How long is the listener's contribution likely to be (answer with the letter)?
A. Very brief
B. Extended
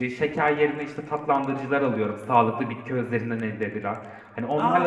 A